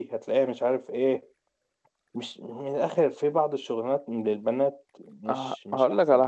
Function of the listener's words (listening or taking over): taking over